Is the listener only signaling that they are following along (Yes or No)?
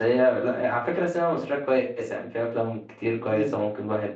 Yes